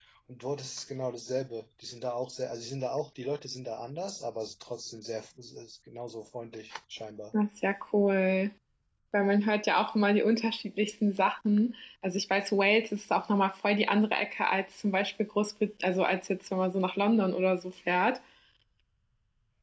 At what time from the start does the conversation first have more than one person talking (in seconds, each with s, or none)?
none